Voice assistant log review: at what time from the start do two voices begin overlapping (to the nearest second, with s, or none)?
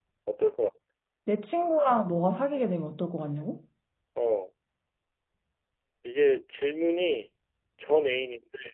none